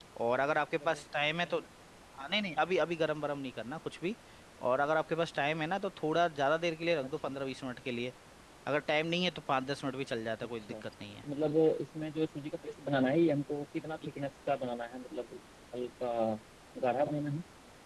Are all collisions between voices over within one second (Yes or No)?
Yes